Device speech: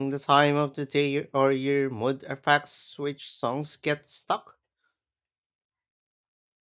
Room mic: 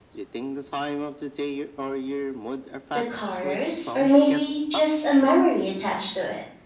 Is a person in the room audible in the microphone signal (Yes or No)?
Yes